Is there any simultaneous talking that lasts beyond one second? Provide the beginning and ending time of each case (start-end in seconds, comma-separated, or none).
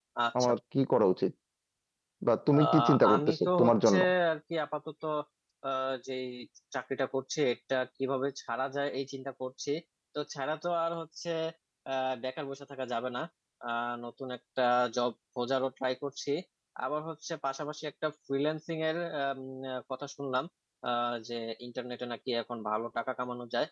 2.5-3.9